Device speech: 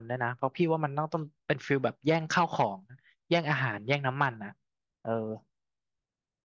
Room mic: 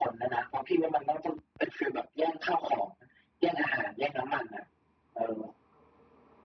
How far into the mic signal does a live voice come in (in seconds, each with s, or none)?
none